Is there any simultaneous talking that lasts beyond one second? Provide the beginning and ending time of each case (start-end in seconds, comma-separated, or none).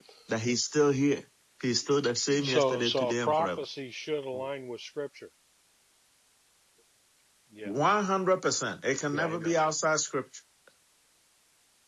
2.4-3.6